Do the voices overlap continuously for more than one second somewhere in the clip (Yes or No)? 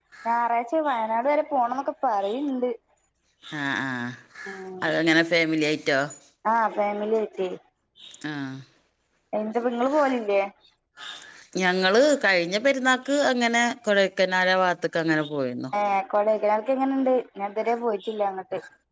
No